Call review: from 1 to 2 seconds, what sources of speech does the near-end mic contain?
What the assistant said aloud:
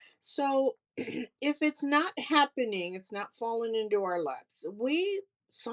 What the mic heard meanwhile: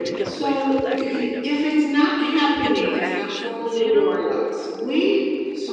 both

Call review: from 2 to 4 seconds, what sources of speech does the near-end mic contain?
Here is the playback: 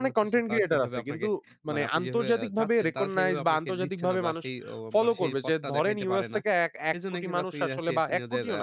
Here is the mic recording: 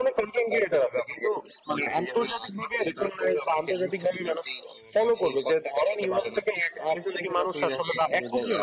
echo only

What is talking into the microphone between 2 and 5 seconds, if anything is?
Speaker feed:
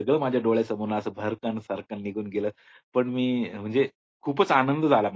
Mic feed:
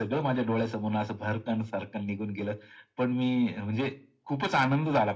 echo only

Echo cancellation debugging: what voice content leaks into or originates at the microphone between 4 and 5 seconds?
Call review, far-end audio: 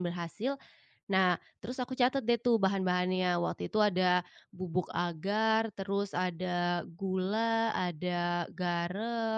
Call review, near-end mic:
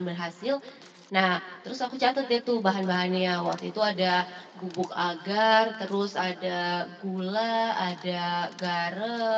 echo only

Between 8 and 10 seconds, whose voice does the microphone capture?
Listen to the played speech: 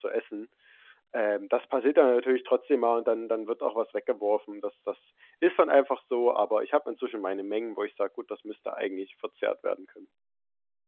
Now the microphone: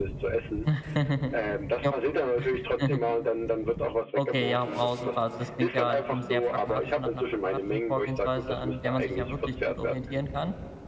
both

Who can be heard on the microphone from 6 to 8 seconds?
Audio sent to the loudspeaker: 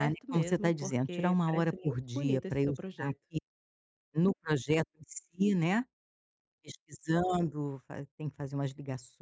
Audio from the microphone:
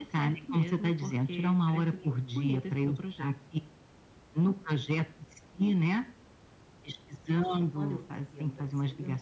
both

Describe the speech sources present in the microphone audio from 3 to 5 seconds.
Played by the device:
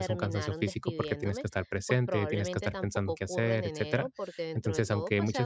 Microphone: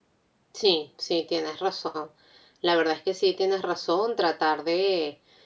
user only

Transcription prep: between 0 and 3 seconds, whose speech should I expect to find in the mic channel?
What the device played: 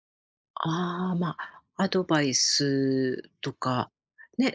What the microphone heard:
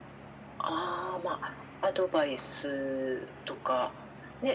echo only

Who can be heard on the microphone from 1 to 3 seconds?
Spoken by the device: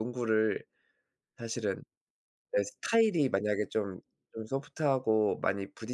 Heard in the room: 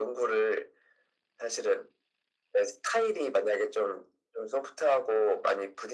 echo only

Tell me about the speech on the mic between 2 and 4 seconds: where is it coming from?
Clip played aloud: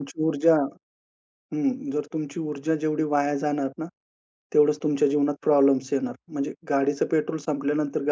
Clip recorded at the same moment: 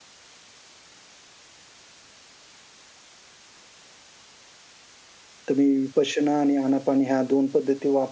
neither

